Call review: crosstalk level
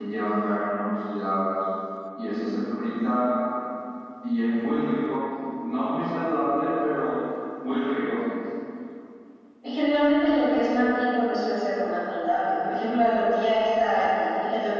none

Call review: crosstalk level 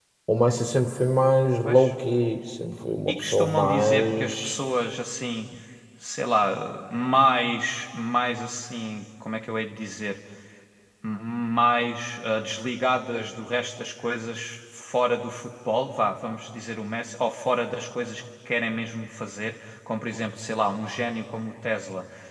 present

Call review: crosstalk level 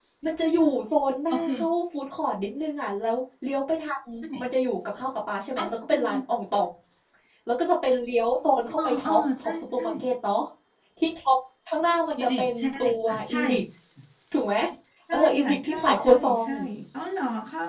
present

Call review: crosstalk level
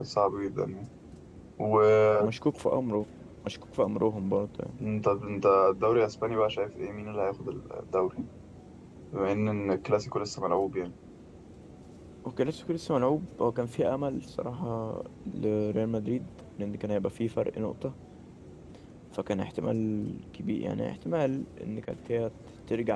none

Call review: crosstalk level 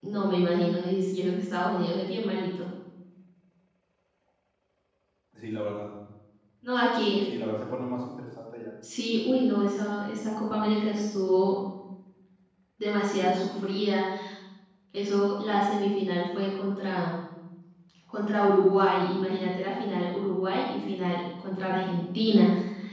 none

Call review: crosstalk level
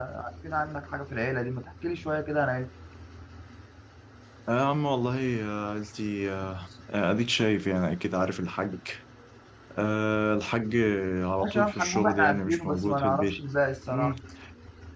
present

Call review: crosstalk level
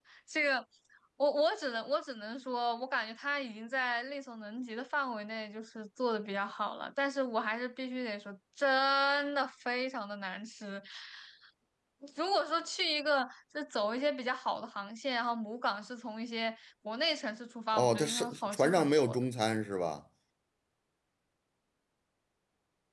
present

